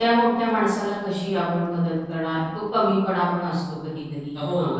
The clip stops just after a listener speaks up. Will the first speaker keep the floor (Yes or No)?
No